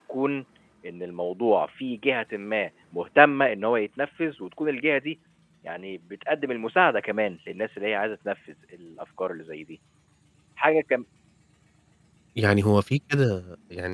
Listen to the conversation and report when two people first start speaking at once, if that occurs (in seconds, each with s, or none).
none